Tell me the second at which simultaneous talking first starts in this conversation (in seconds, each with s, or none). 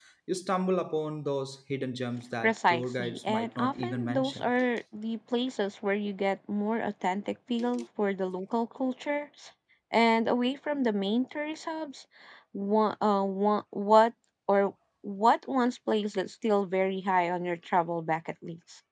2.4 s